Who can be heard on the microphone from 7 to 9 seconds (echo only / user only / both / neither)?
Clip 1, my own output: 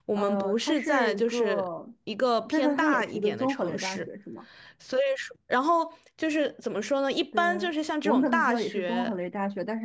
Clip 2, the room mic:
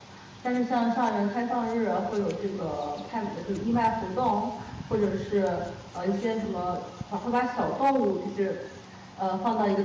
user only